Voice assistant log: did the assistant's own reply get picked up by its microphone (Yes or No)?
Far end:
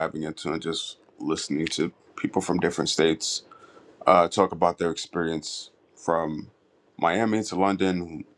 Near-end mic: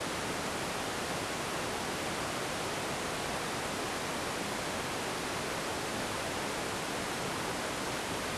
No